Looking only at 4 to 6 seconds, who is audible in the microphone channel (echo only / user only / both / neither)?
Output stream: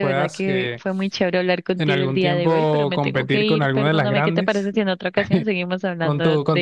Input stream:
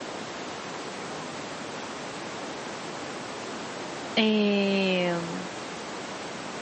user only